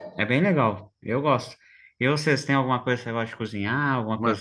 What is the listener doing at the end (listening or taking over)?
taking over